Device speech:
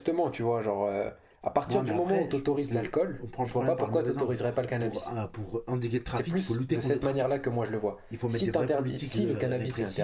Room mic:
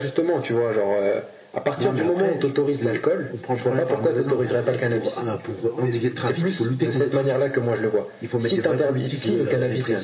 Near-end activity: present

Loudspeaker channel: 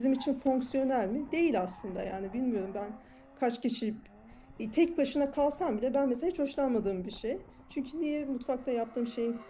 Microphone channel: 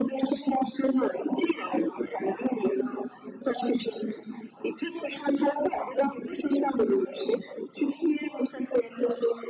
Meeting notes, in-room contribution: none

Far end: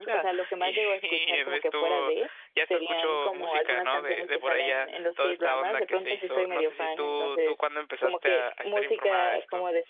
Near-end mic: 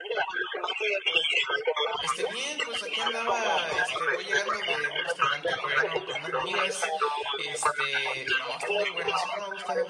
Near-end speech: present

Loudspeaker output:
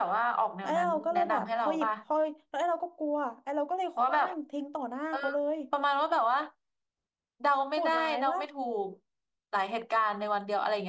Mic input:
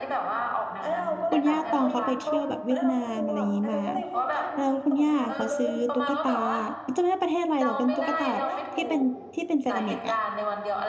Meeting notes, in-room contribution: present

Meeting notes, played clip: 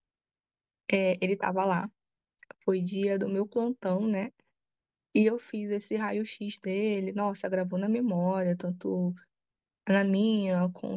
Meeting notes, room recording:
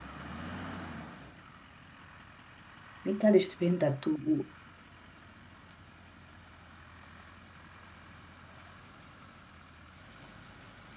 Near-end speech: present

